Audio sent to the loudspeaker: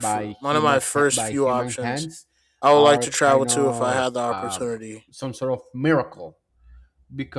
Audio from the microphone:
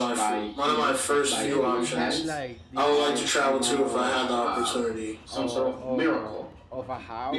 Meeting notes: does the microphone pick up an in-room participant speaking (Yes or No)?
Yes